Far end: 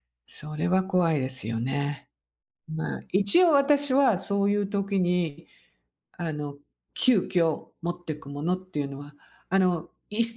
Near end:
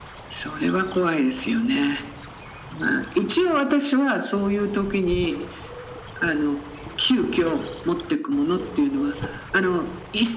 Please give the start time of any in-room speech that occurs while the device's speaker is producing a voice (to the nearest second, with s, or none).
none